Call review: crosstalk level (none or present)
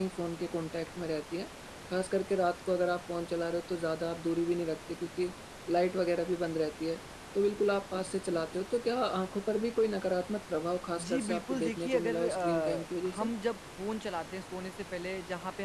present